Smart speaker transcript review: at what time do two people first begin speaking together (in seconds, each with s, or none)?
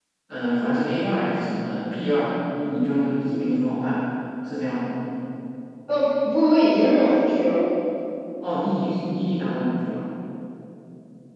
none